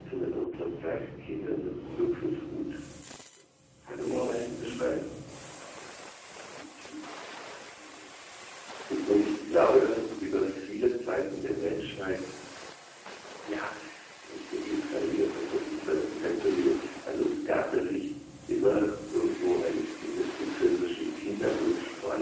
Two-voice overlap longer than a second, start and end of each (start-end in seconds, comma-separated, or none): 3.8-5.2